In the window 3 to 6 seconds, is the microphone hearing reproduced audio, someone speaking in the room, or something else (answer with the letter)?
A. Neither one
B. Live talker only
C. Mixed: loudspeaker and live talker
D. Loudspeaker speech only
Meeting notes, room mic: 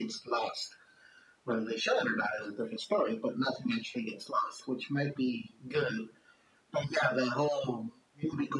D